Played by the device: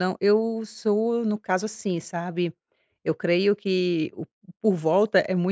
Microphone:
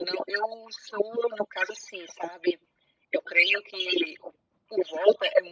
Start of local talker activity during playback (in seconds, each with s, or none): none